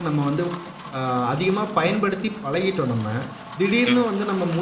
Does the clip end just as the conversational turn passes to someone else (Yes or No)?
No